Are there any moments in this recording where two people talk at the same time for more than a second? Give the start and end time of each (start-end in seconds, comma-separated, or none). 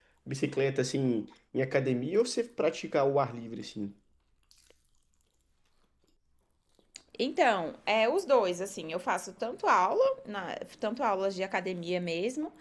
none